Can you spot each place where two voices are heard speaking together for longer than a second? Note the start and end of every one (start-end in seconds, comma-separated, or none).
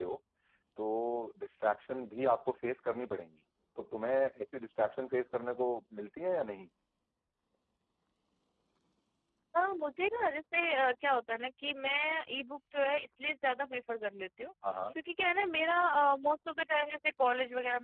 none